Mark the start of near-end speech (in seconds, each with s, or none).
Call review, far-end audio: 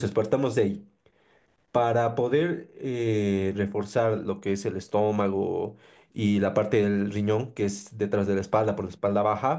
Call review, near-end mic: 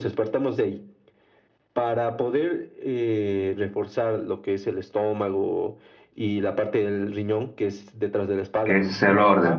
8.6 s